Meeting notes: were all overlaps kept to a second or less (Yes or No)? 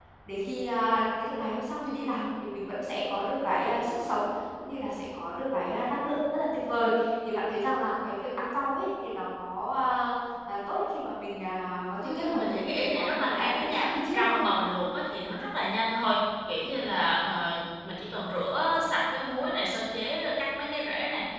No